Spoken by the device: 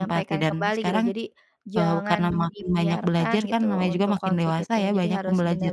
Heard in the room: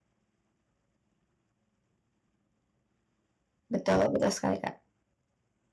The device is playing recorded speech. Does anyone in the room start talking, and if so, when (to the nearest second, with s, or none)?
4 s